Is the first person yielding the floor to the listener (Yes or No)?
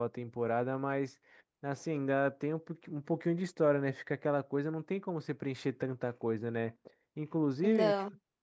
No